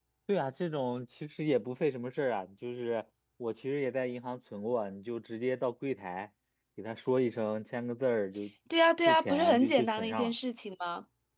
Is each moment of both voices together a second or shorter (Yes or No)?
No